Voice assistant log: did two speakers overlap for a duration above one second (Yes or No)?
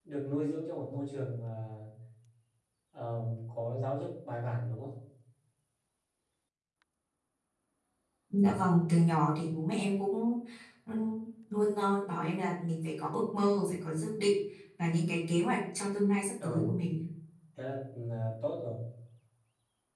No